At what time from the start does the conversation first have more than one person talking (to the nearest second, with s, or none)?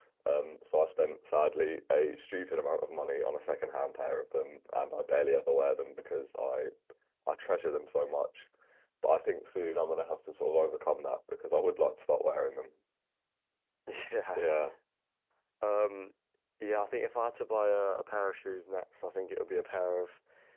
none